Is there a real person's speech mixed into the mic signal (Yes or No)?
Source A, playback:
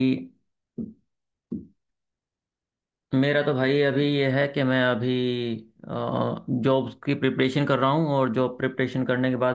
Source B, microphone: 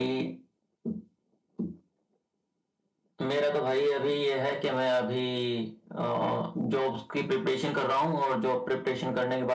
No